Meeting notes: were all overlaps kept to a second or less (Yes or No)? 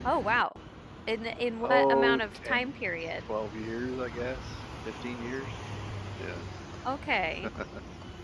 No